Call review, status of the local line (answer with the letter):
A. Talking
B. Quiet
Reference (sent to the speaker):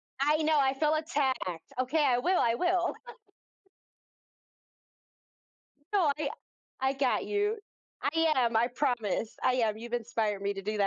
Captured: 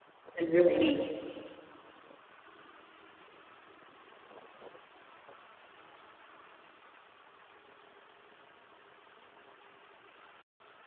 A